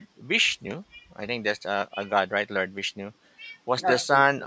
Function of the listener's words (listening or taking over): listening